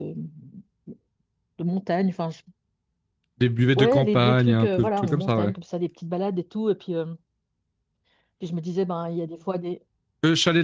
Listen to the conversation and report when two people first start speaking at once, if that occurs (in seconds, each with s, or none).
3.8 s